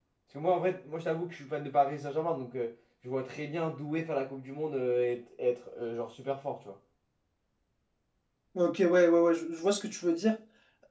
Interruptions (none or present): none